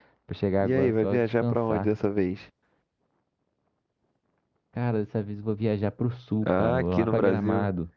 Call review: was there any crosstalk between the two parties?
Yes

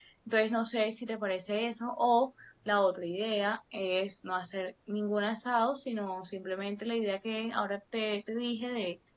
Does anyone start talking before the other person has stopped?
No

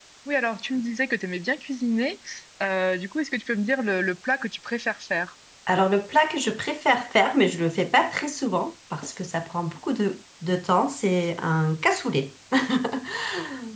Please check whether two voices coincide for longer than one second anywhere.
No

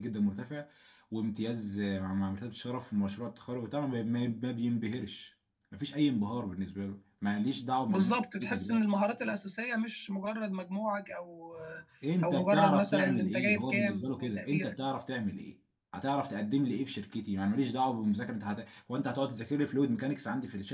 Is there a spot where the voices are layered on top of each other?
Yes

